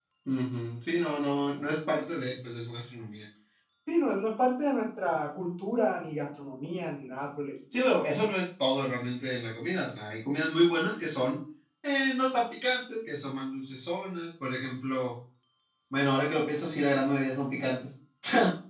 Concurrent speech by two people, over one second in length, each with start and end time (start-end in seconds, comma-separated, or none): none